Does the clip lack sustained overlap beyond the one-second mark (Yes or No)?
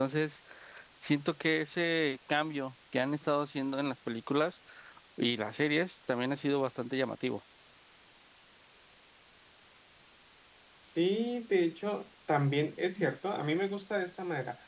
Yes